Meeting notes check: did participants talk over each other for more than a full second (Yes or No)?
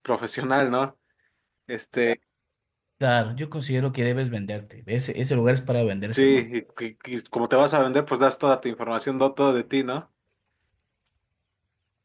No